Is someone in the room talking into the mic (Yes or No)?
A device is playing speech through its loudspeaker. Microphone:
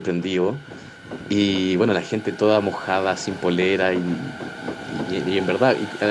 Yes